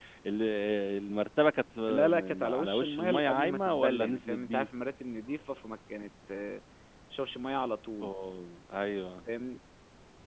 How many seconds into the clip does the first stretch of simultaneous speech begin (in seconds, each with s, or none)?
1.9 s